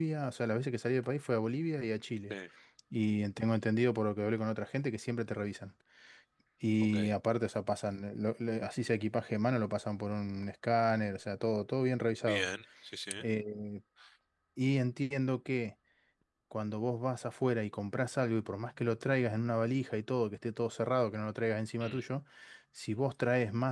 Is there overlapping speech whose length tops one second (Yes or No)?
No